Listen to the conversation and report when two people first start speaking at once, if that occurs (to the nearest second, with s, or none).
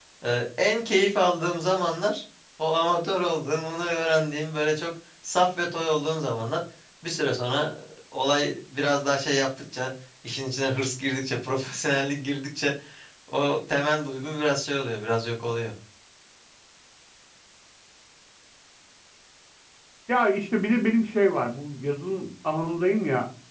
none